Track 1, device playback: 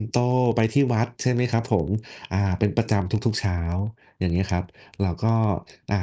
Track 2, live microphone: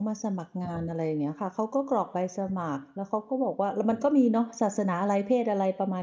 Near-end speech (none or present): present